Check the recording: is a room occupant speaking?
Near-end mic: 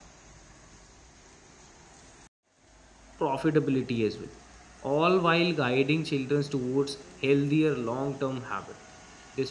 Yes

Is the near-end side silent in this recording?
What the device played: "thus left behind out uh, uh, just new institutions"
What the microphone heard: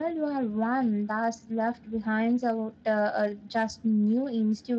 Yes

